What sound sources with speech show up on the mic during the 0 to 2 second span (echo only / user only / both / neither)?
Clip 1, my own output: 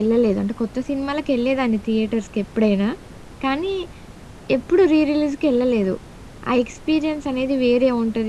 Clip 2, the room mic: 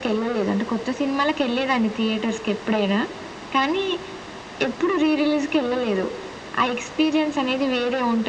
echo only